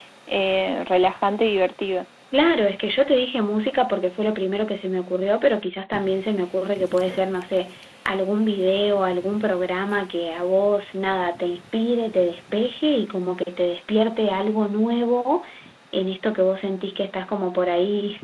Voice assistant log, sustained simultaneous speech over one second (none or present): none